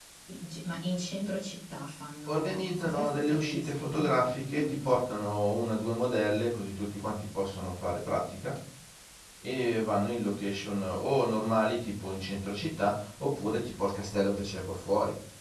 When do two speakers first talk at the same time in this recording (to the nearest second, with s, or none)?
2 s